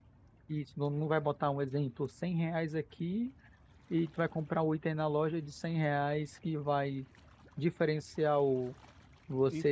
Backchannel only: No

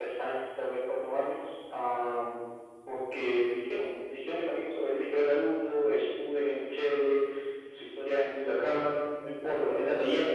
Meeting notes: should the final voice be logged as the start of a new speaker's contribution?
No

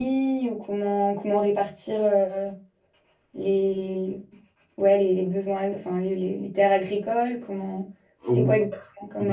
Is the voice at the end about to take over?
Yes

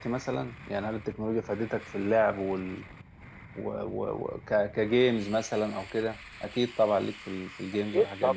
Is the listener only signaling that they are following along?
No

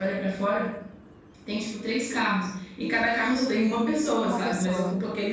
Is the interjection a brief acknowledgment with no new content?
Yes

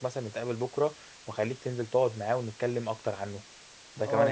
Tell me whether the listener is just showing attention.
No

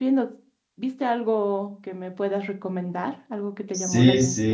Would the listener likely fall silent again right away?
No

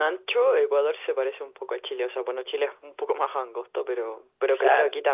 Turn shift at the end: No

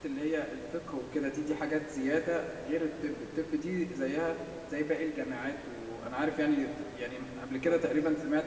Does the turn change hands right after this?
No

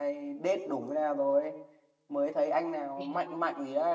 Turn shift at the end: No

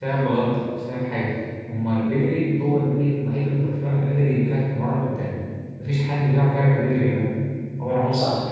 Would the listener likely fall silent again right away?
No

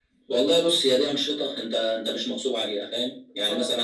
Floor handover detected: No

